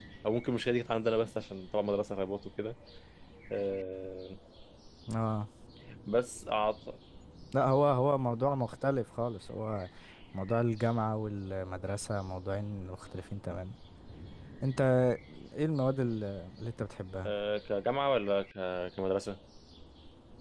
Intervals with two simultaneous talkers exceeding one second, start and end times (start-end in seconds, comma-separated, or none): none